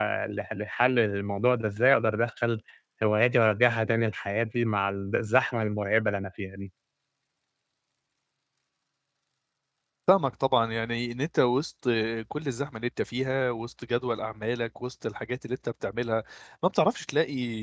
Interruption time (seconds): none

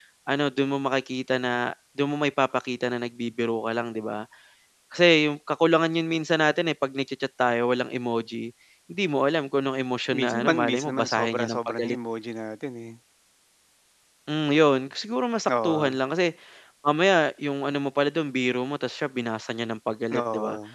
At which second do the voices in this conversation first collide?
10.1 s

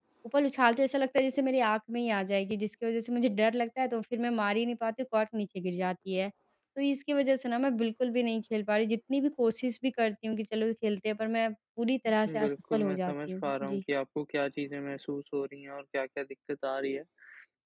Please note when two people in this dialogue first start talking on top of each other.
12.0 s

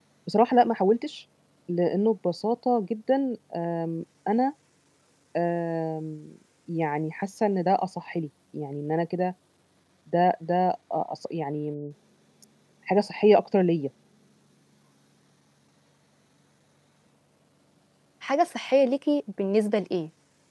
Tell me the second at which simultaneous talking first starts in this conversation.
none

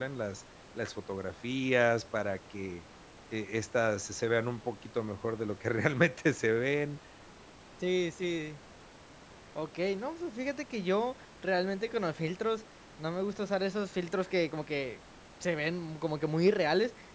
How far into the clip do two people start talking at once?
none

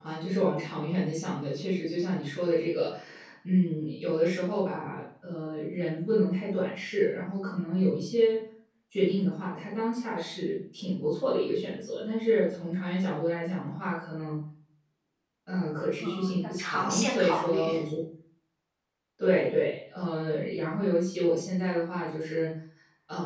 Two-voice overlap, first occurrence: 16.0 s

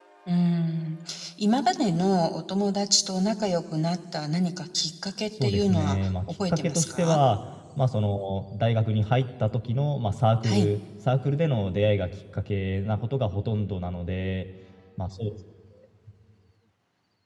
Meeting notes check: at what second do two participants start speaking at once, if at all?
5.4 s

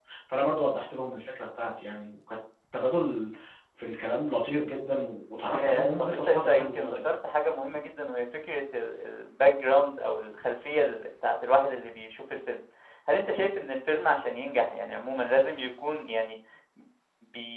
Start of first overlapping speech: 5.5 s

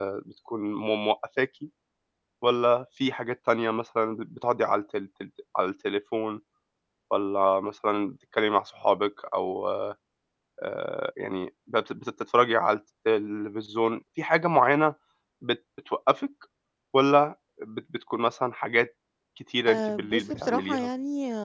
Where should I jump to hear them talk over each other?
19.7 s

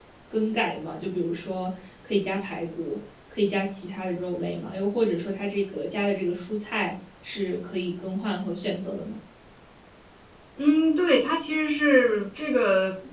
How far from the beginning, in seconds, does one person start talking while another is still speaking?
none

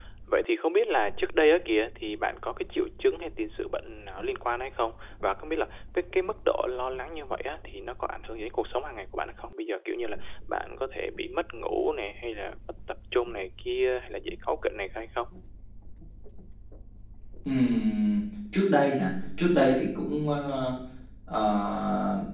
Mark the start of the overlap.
none

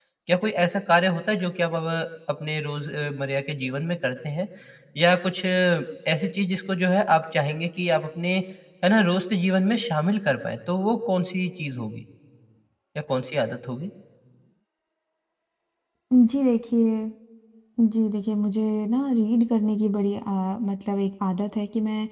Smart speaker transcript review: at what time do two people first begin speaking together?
none

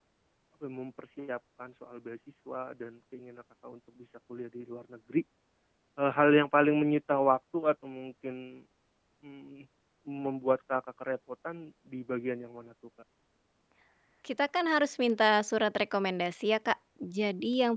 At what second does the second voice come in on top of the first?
none

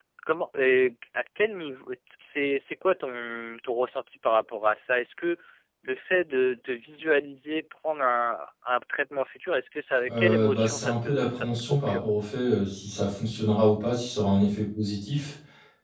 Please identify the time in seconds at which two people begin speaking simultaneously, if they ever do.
10.1 s

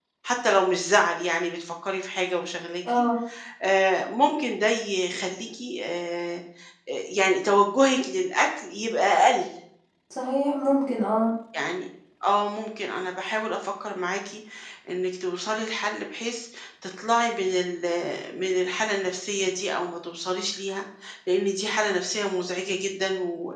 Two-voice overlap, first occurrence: none

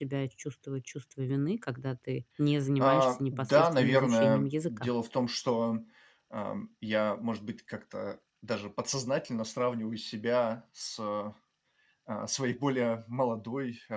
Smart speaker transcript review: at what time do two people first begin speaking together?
2.8 s

